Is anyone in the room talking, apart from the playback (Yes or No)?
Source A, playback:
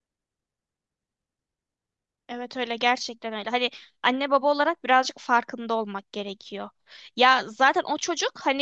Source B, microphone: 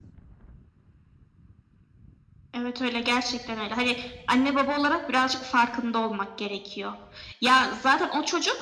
No